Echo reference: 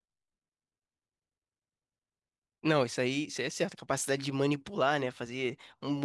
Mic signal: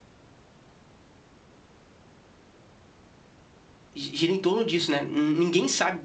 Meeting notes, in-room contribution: present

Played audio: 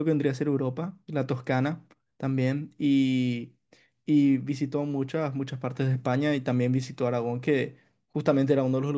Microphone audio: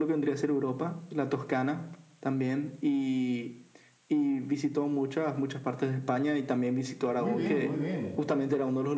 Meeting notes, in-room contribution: present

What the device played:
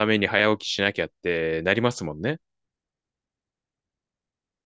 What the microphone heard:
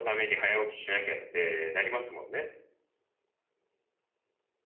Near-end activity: none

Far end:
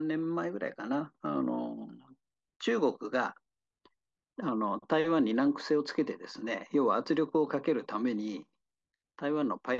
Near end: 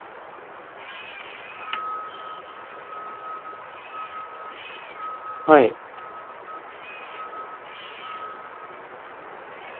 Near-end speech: present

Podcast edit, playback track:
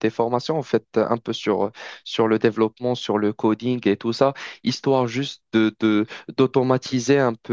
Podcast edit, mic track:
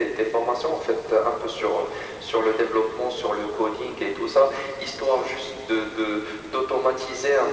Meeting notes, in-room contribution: none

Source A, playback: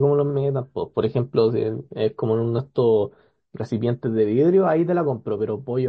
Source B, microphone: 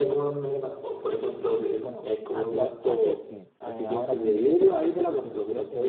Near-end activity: present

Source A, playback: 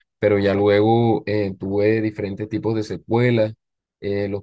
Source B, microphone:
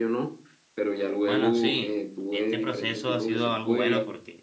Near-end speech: present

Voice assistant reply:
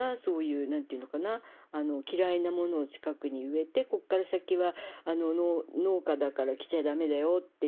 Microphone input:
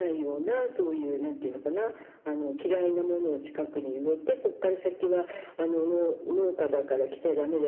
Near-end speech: none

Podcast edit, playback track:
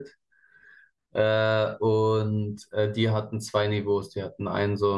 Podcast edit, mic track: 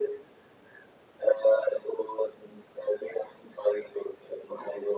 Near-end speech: none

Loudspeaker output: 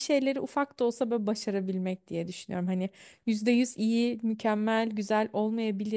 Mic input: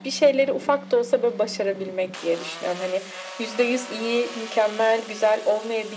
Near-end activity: none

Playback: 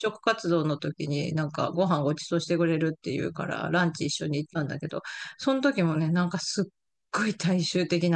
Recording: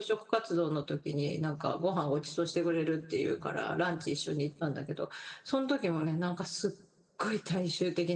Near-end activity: none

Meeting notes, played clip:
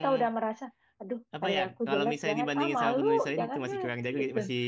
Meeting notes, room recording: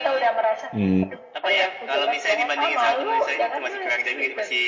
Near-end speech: present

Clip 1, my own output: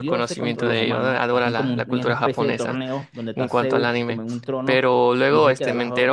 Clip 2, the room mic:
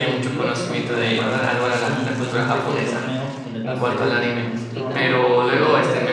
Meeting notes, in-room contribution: present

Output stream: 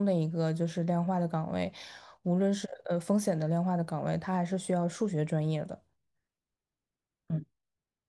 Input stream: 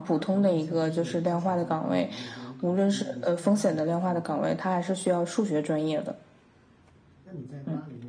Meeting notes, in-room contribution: present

